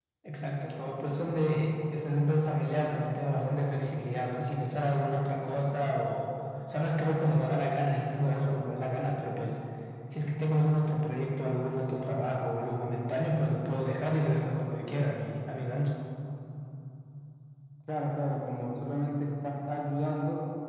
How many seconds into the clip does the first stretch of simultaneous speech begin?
none

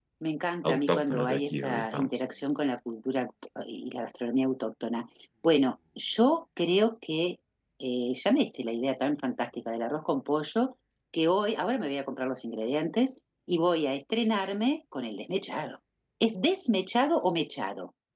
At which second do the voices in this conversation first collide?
0.6 s

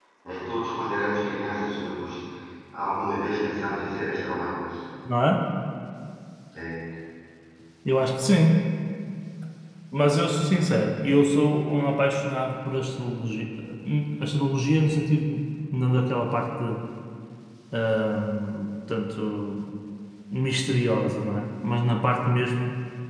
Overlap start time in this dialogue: none

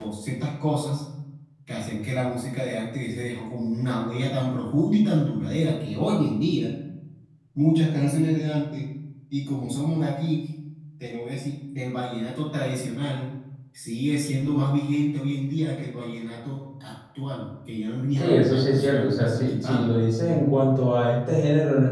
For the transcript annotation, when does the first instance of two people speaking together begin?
18.1 s

